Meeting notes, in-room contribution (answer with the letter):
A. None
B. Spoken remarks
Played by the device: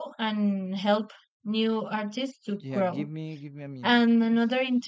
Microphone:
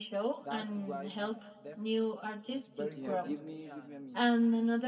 B